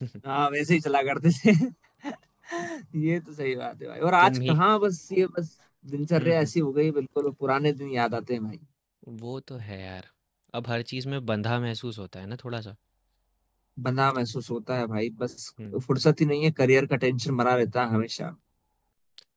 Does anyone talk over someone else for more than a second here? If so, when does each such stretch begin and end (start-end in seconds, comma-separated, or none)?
none